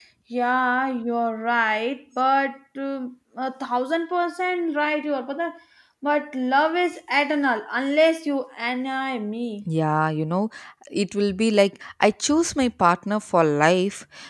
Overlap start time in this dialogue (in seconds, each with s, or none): none